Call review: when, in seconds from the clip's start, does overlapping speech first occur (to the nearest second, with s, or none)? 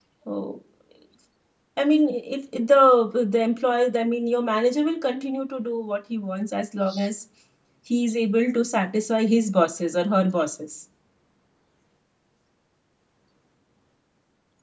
none